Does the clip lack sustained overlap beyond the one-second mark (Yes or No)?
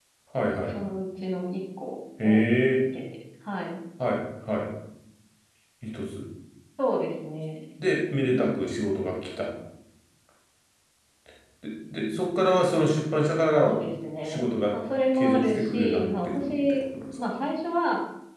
No